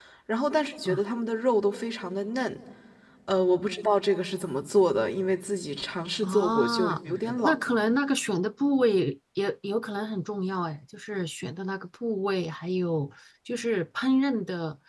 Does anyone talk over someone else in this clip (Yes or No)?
Yes